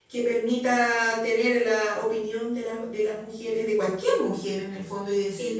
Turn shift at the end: No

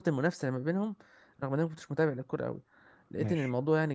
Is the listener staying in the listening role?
Yes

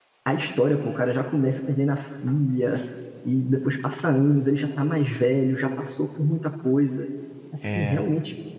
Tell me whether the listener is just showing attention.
Yes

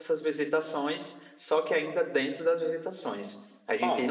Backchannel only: Yes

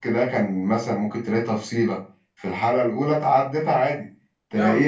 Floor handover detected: No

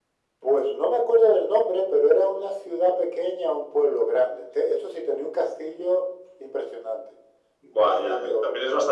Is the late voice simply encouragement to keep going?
No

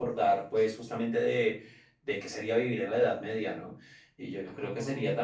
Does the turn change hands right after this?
No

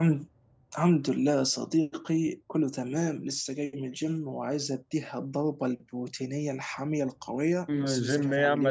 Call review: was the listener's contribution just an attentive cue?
No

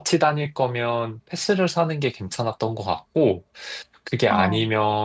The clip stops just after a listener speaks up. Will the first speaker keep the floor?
Yes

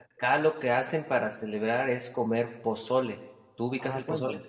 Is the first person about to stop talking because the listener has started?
Yes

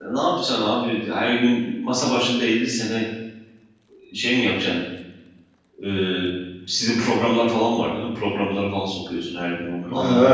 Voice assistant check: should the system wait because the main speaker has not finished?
No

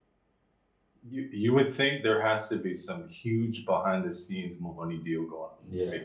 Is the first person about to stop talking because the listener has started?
Yes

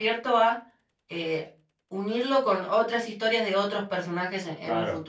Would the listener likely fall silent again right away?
No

